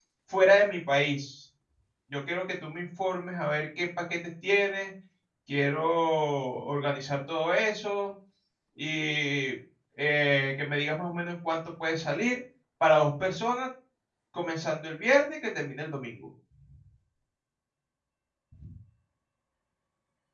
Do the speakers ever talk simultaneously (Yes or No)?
No